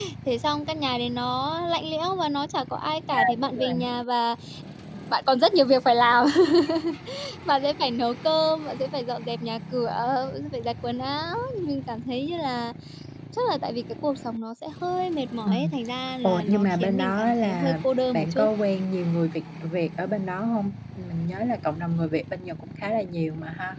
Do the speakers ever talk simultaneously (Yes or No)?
Yes